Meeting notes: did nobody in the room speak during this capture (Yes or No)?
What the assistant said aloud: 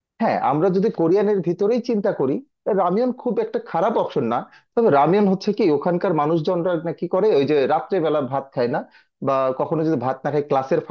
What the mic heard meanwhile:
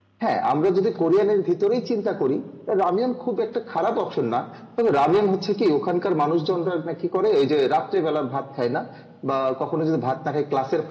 Yes